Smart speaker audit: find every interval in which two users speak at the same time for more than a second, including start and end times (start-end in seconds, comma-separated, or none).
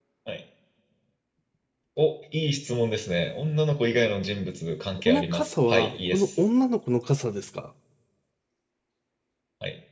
5.0-6.3